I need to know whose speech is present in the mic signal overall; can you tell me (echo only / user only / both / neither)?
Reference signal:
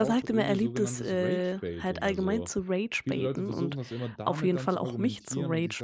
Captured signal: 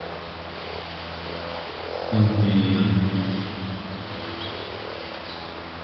user only